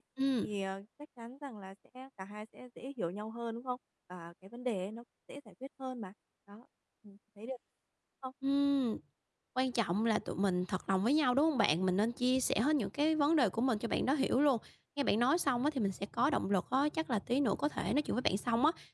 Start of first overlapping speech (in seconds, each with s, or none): none